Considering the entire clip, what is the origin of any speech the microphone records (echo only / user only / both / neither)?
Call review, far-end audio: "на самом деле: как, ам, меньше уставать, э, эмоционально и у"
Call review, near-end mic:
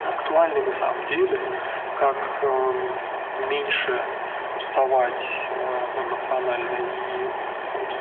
echo only